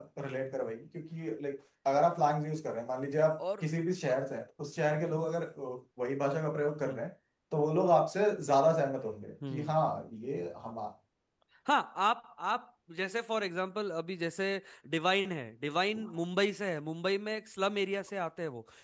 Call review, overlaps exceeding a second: none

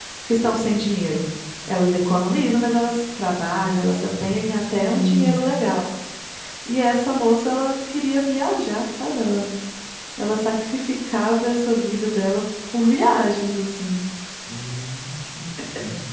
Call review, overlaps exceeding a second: none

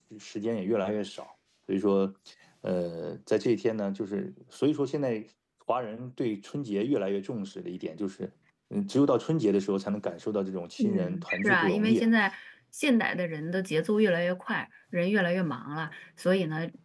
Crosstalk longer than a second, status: present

